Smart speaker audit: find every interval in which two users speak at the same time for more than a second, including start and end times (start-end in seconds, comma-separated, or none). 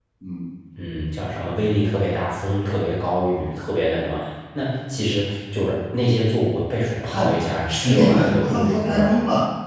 7.8-9.2